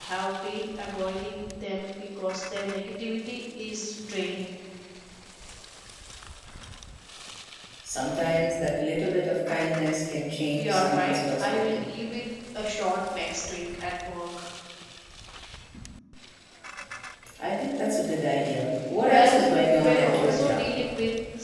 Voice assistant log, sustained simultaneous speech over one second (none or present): present